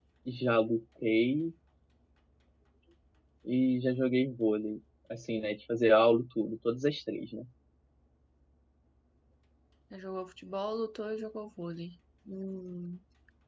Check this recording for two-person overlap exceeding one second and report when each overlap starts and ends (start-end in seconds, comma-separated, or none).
none